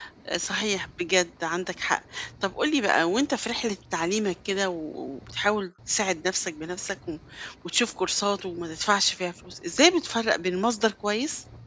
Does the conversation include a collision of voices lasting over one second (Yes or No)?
No